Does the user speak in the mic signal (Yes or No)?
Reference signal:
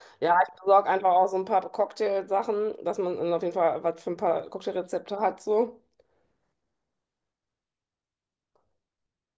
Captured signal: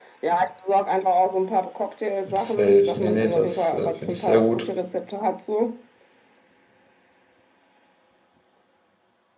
Yes